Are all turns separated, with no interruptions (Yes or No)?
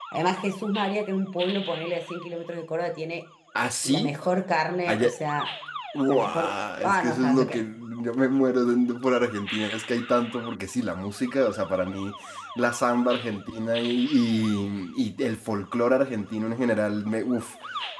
No